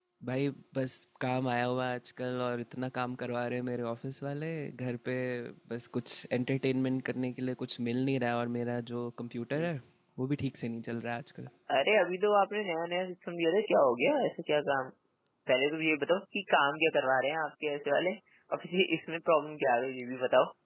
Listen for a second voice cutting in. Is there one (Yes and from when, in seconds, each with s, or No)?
No